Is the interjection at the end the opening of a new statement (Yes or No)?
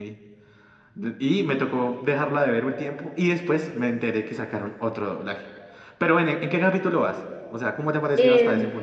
Yes